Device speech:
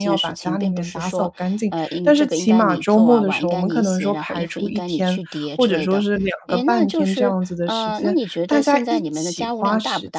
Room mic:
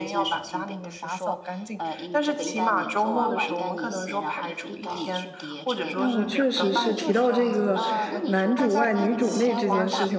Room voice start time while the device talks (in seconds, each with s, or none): 5.9 s